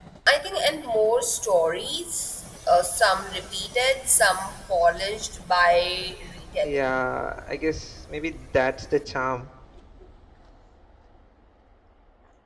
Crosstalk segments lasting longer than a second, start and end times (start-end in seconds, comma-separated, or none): none